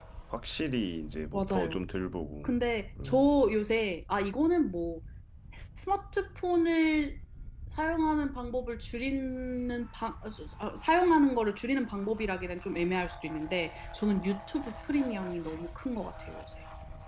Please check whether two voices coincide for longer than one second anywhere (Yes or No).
No